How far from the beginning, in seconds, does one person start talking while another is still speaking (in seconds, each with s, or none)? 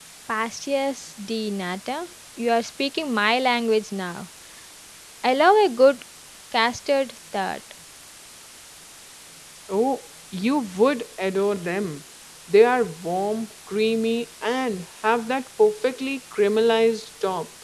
none